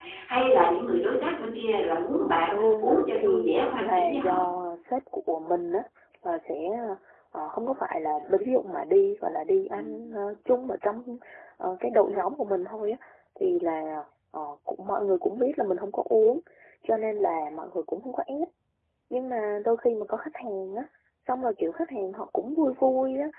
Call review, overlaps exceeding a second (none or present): present